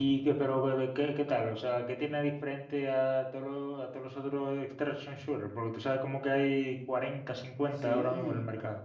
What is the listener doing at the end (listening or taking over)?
taking over